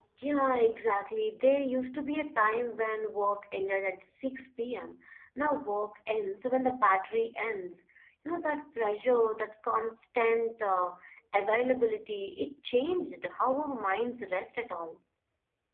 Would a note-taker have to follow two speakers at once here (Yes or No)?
No